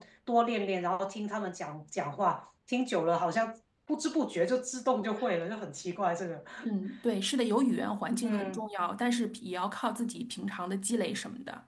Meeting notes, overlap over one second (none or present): none